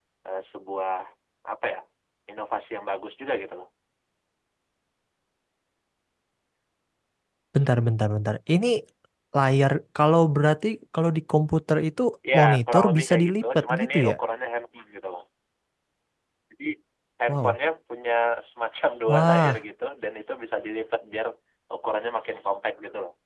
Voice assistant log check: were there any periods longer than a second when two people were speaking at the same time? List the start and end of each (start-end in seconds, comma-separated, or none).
12.4-14.1